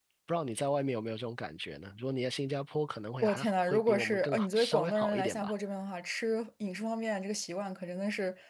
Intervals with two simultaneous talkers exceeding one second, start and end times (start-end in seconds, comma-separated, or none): 3.2-5.5